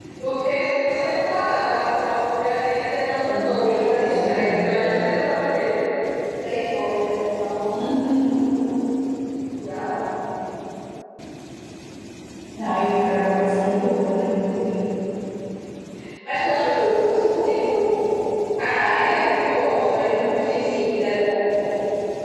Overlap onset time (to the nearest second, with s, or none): 3 s